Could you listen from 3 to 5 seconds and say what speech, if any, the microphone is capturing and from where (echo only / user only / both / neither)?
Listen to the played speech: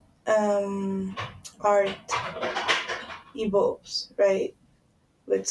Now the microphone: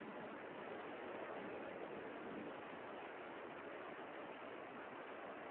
neither